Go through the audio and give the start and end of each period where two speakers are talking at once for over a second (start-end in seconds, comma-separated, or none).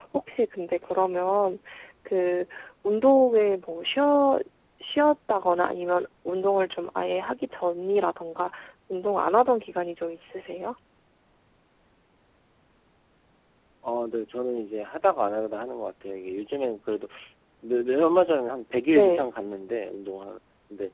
none